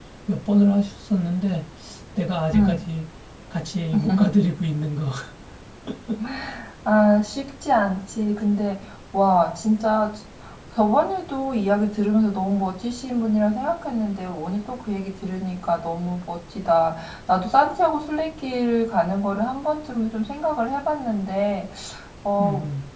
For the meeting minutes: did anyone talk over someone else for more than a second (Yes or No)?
No